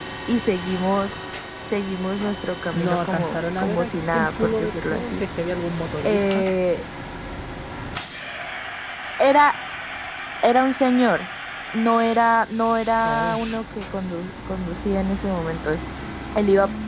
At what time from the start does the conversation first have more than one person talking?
2.7 s

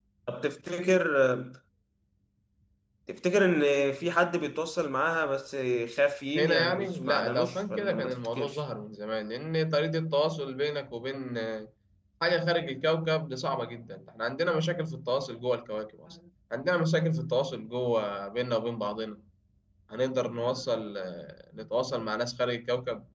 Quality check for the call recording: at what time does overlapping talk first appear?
6.4 s

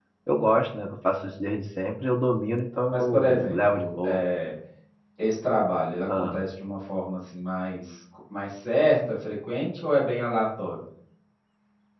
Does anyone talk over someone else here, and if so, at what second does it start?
2.9 s

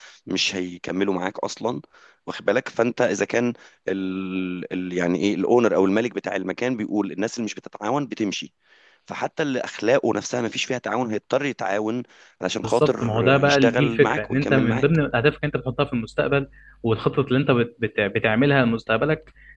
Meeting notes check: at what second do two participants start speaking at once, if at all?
12.6 s

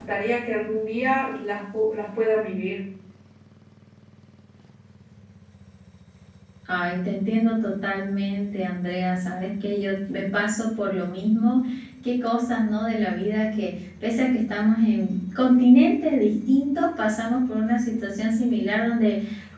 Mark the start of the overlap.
none

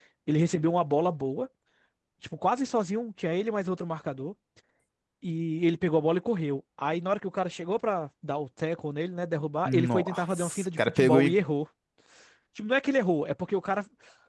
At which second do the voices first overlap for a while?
9.6 s

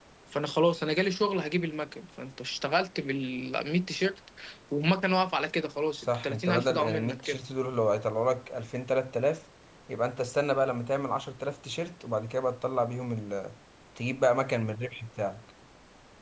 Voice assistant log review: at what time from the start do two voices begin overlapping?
6.0 s

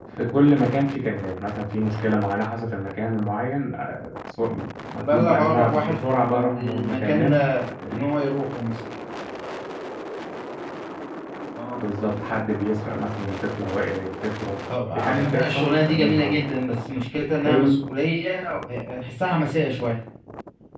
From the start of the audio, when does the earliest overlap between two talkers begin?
5.0 s

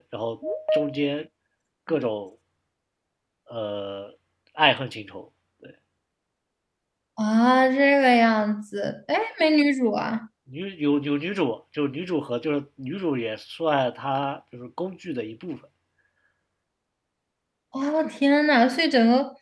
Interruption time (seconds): none

